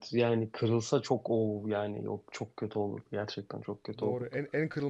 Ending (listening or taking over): taking over